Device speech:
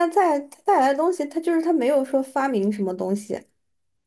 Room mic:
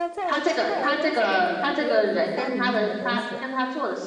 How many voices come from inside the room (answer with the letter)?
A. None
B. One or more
B